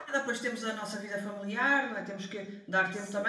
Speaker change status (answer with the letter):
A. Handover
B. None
B